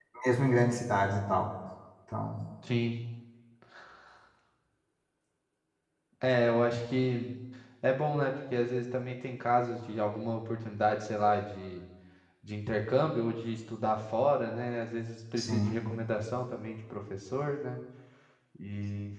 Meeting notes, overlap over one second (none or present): none